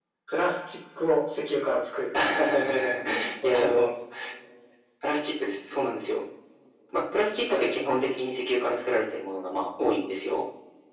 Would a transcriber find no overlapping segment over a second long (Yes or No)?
Yes